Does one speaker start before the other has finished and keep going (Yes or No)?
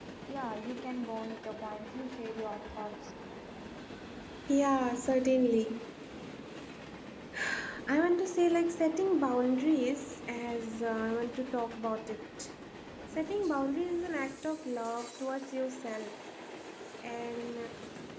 No